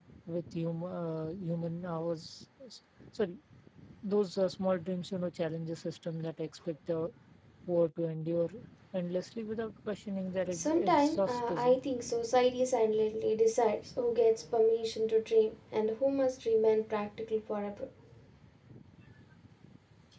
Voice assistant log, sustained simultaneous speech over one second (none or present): present